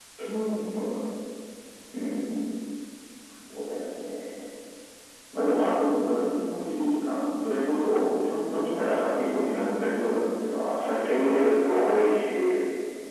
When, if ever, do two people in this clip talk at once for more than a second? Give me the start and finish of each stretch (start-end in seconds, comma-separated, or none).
10.7-12.0